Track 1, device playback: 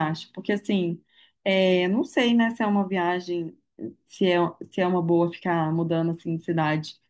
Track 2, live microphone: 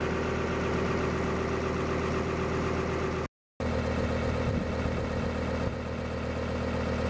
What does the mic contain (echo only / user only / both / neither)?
neither